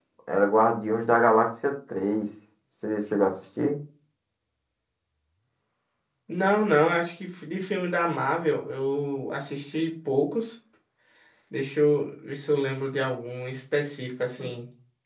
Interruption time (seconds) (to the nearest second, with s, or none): none